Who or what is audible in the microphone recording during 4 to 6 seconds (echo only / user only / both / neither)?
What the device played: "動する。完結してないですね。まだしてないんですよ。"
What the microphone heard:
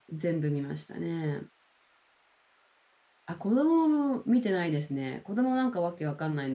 user only